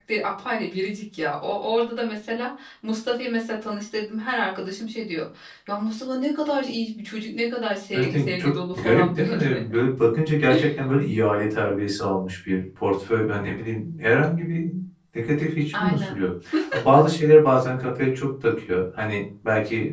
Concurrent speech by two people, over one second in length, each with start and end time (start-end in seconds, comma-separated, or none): 7.9-9.6